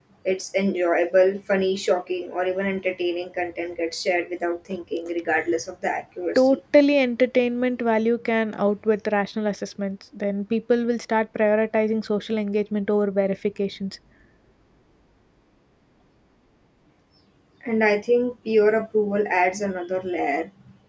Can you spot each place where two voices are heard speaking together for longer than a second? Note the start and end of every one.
none

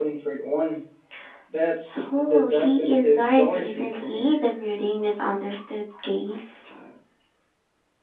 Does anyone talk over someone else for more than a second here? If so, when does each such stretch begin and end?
2.2-4.3

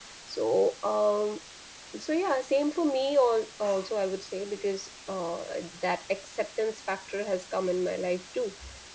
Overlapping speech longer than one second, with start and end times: none

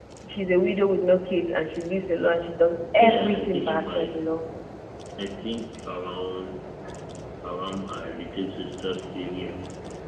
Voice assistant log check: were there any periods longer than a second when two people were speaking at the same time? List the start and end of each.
3.0-4.2

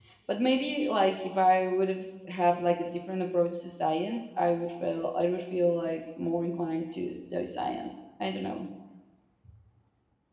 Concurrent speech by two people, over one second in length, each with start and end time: none

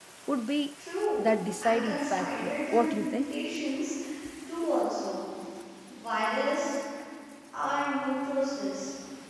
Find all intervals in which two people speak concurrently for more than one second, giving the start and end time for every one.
1.6-3.4

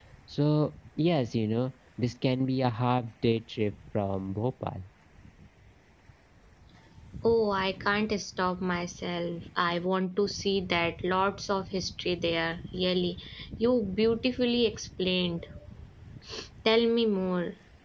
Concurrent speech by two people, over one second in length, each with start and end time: none

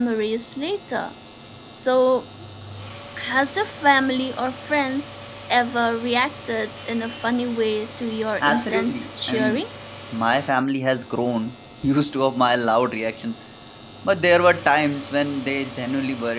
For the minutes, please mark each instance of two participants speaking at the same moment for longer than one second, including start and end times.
8.4-9.7

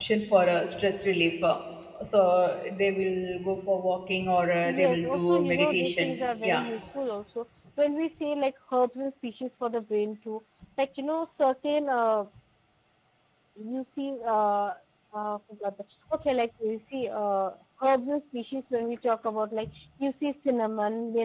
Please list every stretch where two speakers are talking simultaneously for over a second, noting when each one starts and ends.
4.6-6.6

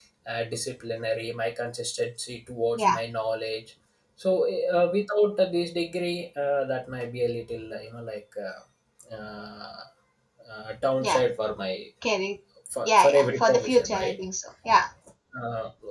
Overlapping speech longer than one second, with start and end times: 12.8-14.1

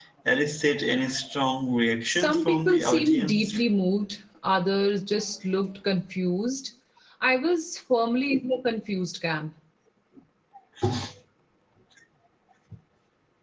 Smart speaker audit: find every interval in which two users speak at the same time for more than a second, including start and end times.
2.1-3.5

